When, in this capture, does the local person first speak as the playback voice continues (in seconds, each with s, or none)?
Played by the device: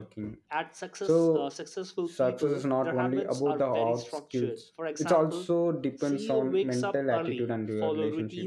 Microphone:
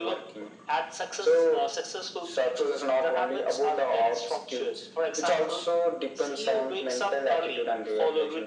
none